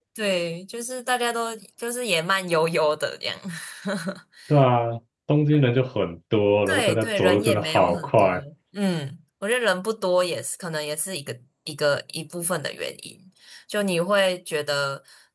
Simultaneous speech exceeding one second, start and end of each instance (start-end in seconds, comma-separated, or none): 6.7-8.3